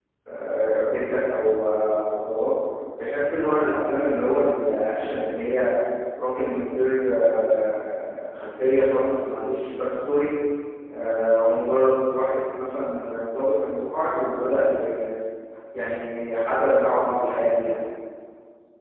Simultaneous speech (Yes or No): No